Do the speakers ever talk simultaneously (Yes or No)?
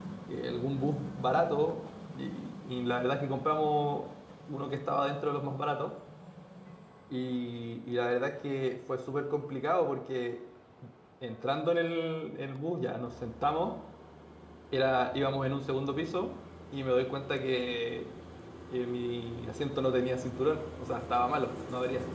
No